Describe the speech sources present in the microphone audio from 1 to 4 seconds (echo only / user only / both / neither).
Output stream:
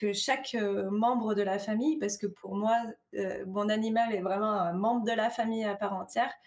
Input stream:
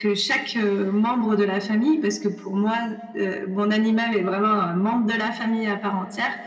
echo only